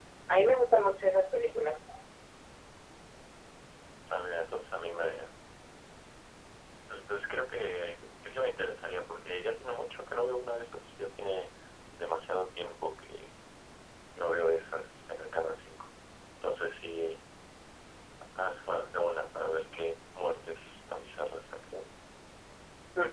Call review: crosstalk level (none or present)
none